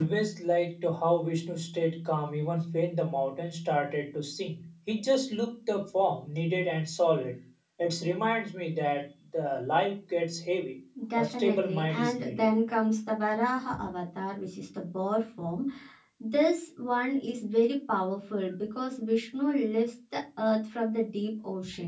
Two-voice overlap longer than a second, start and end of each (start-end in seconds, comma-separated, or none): 11.2-12.5